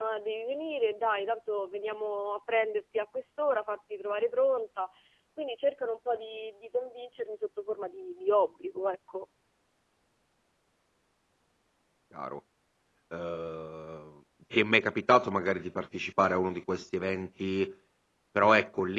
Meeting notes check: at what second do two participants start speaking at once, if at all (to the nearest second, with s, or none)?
none